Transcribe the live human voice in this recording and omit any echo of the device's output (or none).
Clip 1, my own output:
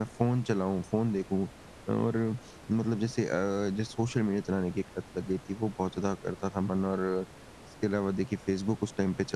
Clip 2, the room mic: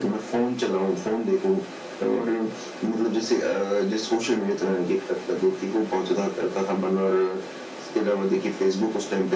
none